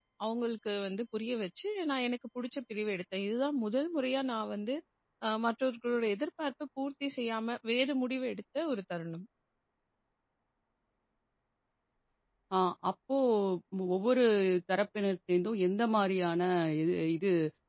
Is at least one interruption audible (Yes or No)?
No